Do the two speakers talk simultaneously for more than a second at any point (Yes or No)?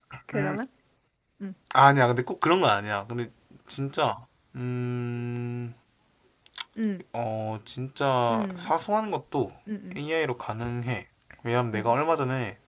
No